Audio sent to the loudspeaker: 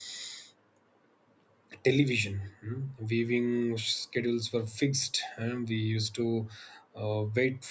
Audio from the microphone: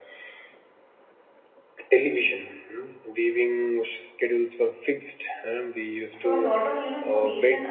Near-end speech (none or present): present